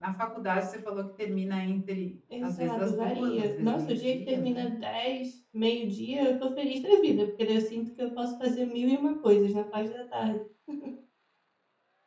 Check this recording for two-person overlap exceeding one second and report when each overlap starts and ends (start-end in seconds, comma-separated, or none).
2.4-4.6